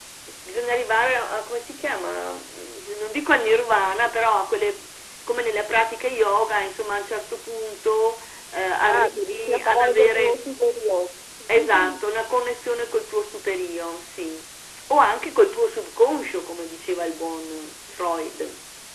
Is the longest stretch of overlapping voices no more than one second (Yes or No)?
No